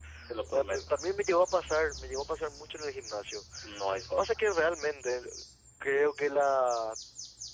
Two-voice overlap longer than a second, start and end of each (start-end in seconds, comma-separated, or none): none